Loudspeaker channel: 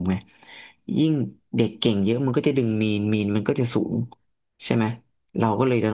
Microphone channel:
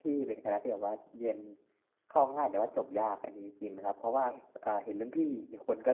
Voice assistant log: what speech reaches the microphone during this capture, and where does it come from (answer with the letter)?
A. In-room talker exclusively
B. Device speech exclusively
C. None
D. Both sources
A